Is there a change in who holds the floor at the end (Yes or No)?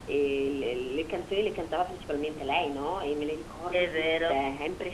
No